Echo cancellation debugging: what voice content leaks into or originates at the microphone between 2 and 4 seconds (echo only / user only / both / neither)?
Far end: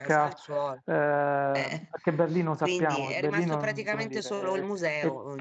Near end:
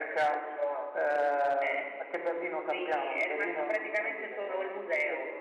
echo only